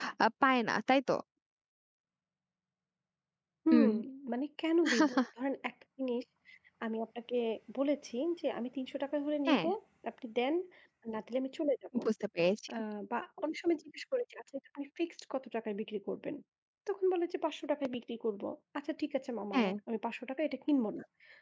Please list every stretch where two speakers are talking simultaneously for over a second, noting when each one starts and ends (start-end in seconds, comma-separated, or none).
none